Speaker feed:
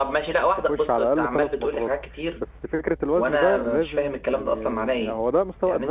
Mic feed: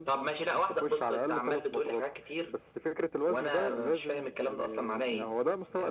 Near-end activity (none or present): none